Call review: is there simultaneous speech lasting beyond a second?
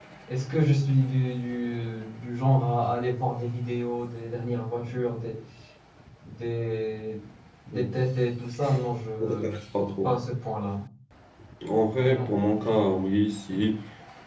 No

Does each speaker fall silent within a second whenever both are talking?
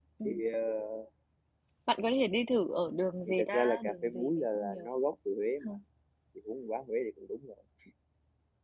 No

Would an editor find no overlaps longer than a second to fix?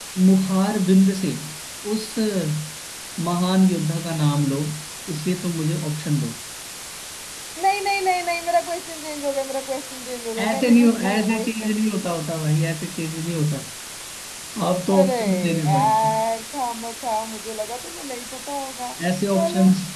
No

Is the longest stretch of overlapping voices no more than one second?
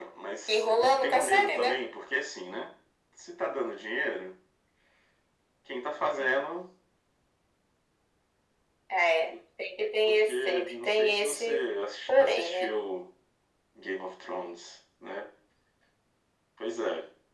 No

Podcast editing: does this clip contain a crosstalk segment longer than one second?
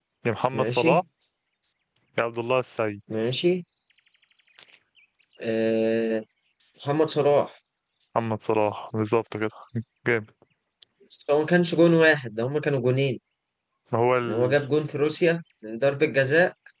No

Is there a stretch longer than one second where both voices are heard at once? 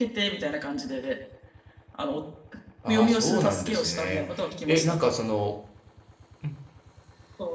Yes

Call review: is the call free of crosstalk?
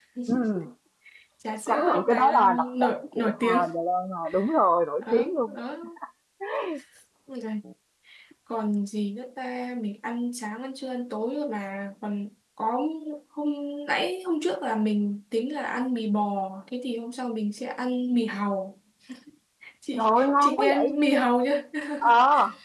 No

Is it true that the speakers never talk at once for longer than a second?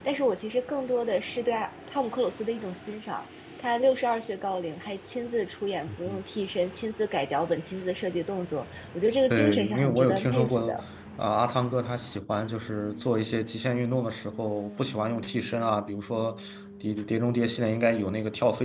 No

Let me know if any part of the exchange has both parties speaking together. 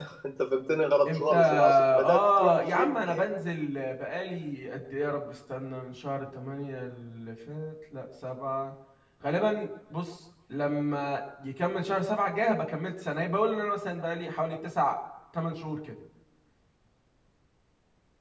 Yes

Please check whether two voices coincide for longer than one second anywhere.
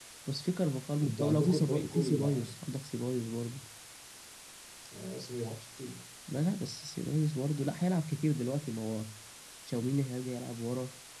Yes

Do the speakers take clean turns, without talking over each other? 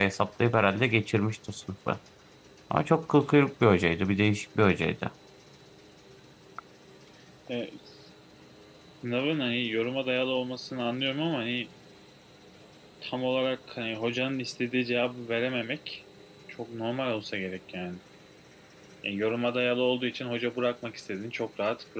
Yes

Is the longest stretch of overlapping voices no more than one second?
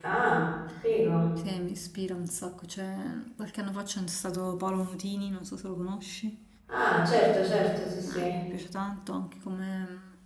Yes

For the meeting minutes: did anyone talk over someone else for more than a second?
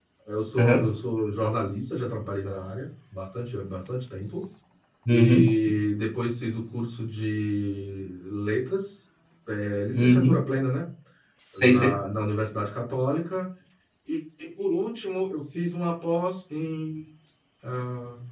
No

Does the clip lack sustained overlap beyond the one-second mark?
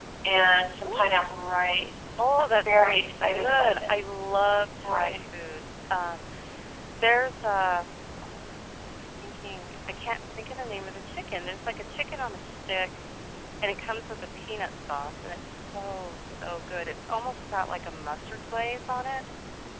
No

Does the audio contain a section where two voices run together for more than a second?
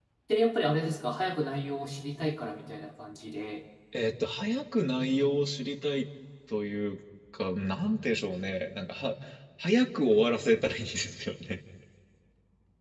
No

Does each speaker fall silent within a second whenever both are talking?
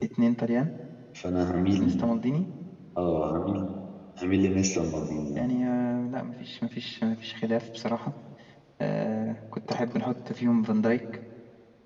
Yes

